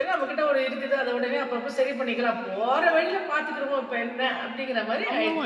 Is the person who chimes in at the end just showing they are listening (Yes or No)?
No